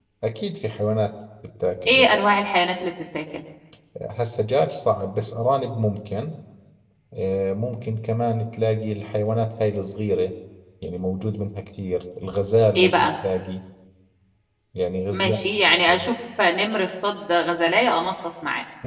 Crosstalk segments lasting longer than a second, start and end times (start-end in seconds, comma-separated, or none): none